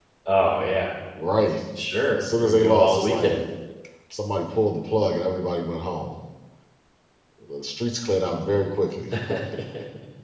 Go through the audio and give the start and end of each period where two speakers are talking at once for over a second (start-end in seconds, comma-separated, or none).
2.1-3.4